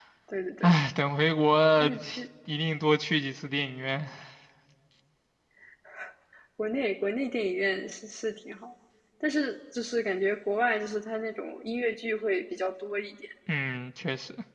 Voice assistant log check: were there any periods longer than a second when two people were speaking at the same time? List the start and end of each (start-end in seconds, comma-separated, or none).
none